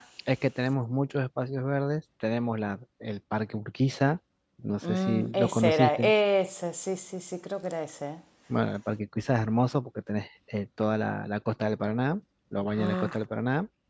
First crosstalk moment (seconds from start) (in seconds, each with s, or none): 4.8 s